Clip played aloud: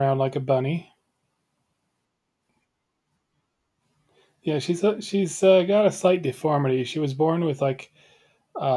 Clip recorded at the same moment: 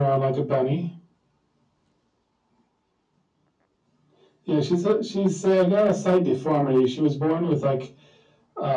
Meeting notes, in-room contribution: none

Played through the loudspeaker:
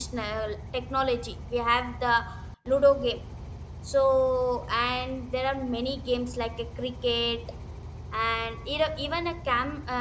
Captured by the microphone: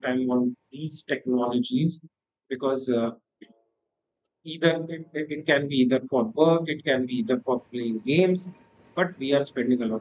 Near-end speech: present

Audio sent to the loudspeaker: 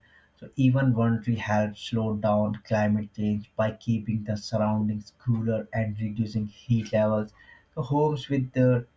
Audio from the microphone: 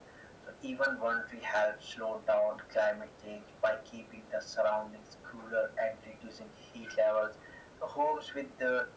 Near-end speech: none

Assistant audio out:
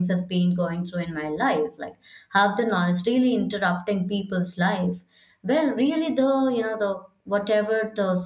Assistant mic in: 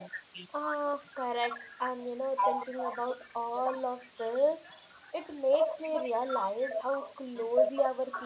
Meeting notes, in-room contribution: present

